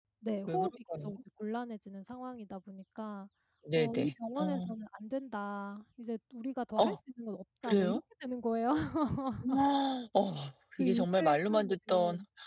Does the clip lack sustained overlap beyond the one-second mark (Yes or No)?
No